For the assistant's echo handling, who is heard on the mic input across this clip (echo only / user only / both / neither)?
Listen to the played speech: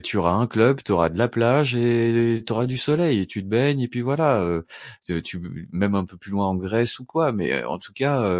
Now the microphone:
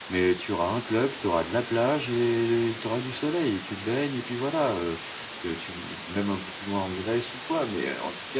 echo only